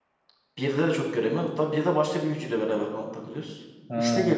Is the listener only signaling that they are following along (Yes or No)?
Yes